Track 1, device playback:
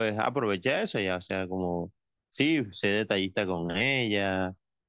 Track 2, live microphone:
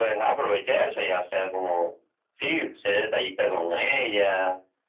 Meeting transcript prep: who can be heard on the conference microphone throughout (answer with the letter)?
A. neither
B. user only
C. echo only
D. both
C